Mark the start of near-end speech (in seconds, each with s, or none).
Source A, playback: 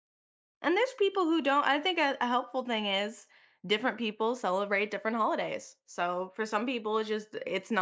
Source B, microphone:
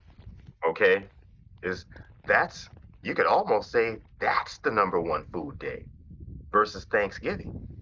0.7 s